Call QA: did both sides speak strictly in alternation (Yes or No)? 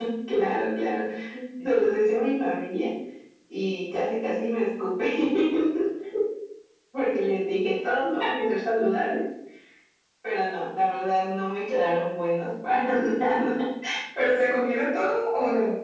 Yes